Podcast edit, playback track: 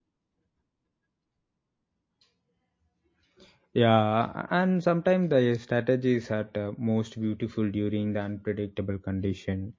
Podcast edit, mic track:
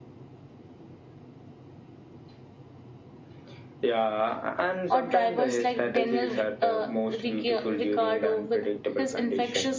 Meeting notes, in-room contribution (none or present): present